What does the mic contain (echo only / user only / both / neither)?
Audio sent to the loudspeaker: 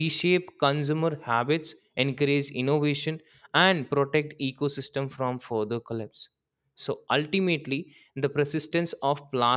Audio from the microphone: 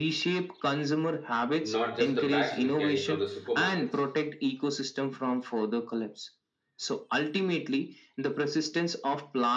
both